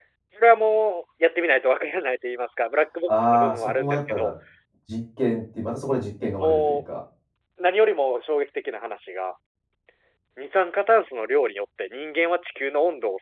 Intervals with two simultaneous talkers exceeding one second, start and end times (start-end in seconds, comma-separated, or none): 3.1-4.3